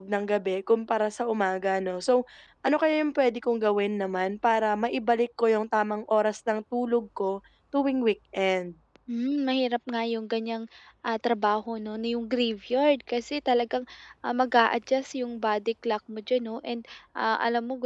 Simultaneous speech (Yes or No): No